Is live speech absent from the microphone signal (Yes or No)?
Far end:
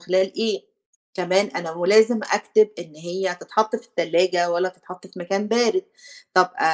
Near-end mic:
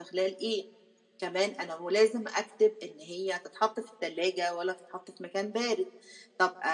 Yes